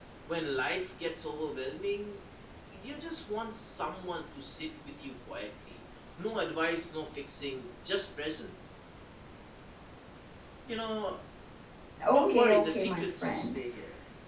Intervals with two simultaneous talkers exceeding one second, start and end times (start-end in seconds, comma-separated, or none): 12.1-13.6